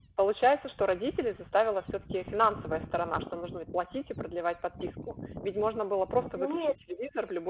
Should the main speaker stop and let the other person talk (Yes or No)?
No